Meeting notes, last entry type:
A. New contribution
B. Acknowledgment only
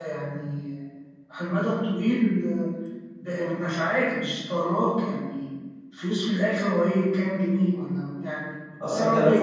A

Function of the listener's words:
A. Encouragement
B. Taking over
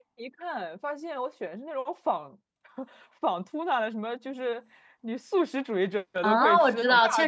B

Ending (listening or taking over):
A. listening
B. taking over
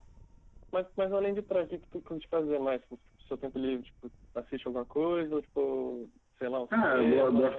B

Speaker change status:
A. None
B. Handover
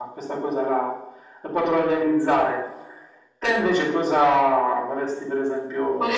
B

